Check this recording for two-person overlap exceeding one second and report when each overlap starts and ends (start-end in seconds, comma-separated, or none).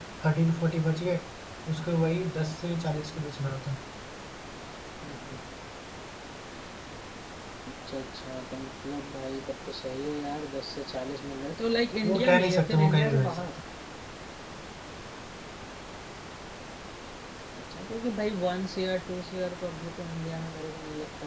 12.0-13.5